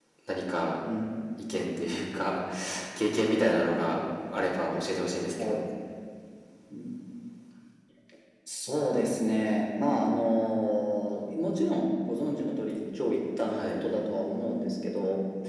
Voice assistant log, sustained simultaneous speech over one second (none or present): none